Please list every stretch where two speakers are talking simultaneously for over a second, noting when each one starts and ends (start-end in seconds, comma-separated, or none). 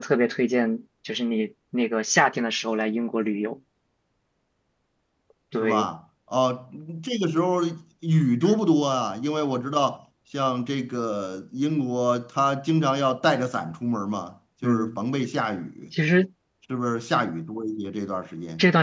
none